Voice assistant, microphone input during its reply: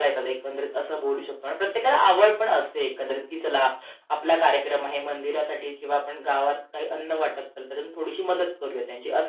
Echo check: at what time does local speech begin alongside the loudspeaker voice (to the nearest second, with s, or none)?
none